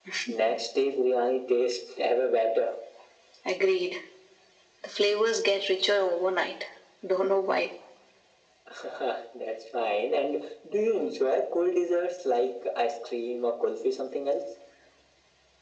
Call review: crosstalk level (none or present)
none